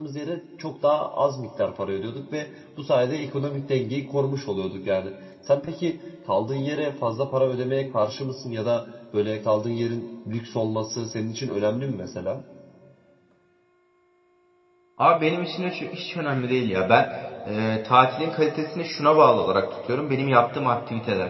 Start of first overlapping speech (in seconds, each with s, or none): none